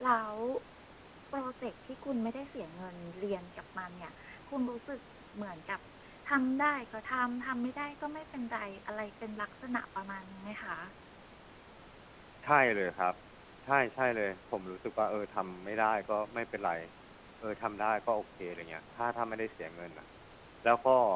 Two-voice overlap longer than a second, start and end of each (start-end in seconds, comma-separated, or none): none